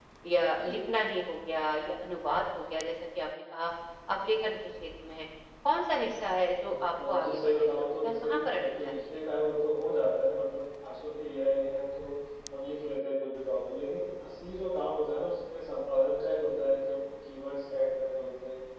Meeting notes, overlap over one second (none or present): present